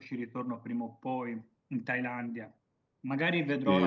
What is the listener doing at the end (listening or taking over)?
taking over